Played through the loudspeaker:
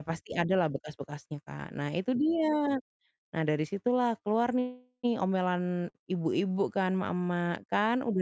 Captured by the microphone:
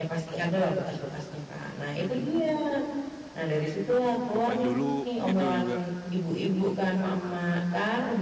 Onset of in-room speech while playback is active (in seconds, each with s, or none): 4.3 s